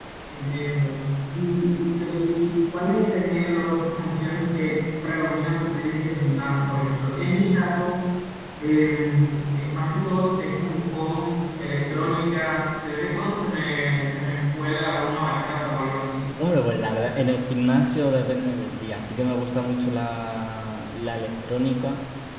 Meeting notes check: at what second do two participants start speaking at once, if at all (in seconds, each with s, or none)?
none